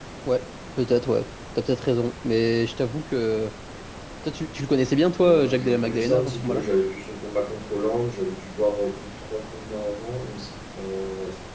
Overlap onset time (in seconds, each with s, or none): 5.2 s